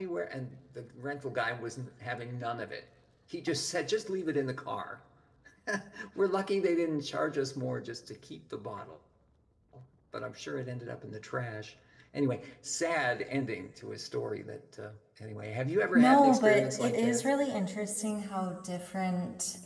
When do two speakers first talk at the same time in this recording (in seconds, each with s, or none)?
15.9 s